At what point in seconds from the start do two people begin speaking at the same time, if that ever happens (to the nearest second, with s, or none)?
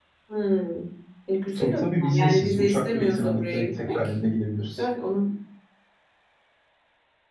2 s